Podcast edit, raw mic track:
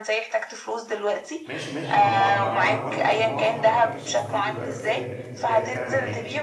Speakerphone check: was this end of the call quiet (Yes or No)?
No